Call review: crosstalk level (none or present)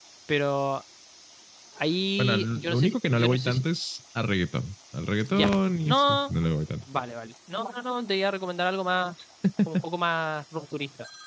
present